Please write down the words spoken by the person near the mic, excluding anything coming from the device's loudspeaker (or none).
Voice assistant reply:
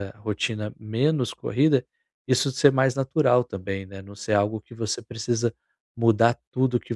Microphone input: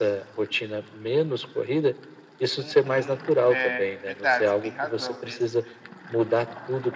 Uhum. É, verdade, você tem razão mesmo.